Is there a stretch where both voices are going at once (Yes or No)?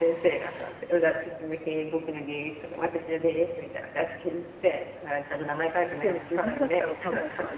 Yes